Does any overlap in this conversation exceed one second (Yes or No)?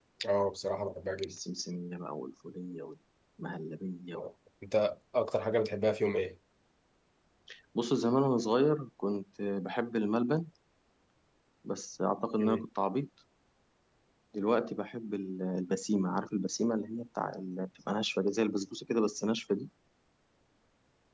No